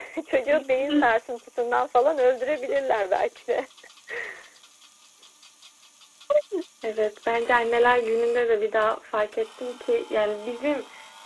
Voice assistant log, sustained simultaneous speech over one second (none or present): none